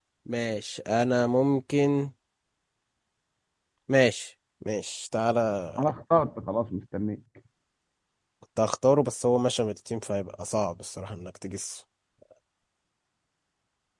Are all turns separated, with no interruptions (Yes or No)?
Yes